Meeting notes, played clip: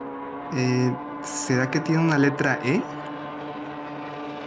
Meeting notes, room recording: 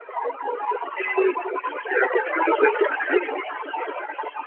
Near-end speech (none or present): none